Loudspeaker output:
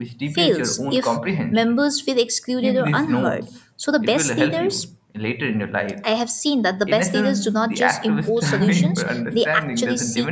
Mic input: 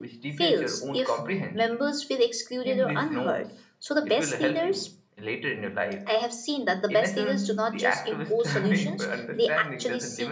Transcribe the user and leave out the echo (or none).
none